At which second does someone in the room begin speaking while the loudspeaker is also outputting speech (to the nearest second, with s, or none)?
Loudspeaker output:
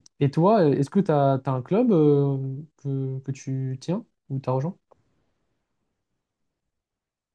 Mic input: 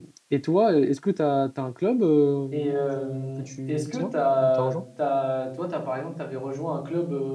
3 s